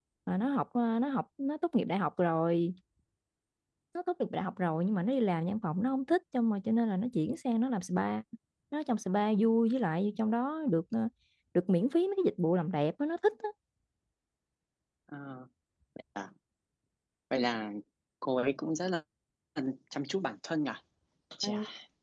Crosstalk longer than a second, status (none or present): none